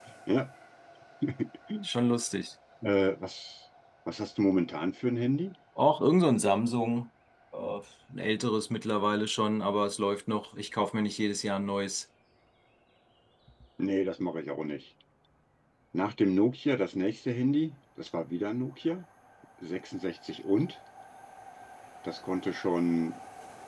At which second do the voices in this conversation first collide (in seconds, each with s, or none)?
none